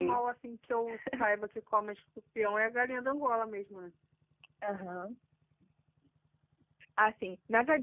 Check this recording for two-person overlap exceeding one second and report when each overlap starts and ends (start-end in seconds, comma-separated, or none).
none